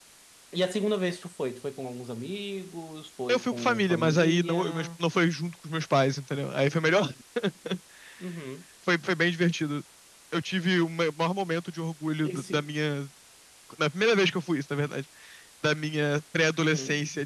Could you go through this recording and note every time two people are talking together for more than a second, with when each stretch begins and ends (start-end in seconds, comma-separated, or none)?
3.3-4.9